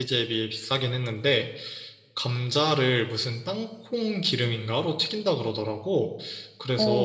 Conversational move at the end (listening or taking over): listening